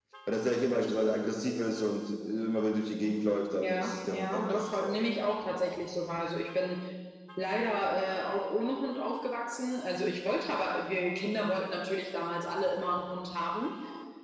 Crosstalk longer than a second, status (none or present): present